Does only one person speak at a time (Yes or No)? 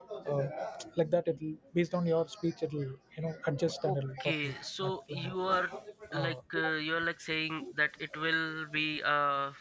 No